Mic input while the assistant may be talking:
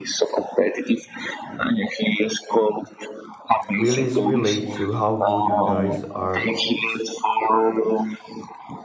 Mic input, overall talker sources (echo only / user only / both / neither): both